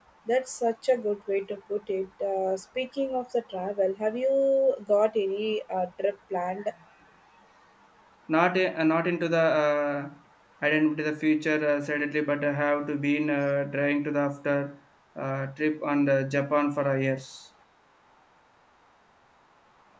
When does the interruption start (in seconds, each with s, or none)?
none